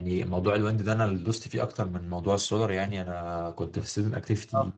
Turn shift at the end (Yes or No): No